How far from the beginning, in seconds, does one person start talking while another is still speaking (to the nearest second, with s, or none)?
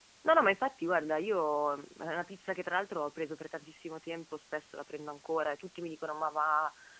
none